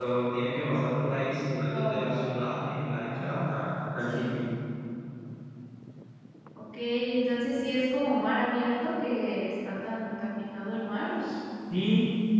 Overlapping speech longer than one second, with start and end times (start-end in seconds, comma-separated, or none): none